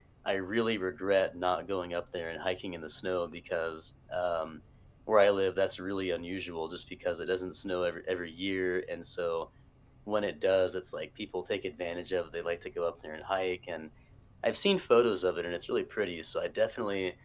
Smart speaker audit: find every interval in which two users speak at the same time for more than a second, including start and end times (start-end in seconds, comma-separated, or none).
none